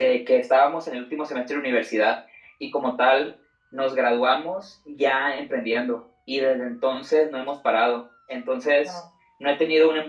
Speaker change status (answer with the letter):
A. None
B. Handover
A